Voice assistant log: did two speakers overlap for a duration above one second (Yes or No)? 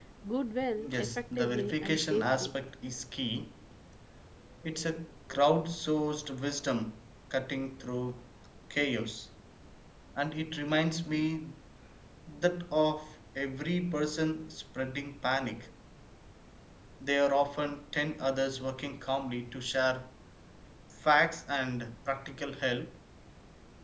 Yes